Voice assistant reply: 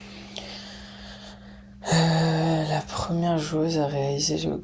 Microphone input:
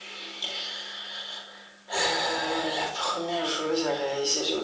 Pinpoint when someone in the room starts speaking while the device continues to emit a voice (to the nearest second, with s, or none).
none